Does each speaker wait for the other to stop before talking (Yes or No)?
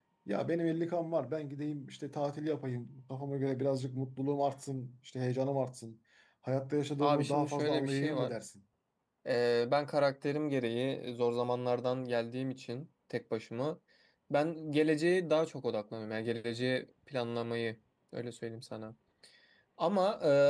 No